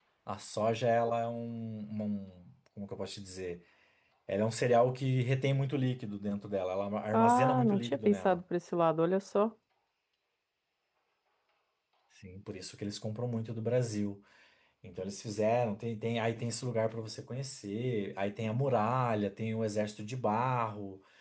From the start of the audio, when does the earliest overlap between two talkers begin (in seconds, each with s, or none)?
7.1 s